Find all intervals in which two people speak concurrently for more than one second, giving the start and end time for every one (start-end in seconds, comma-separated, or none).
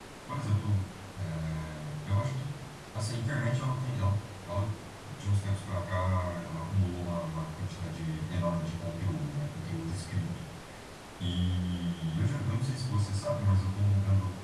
none